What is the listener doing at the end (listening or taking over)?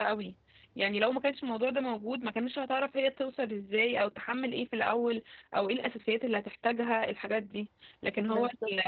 listening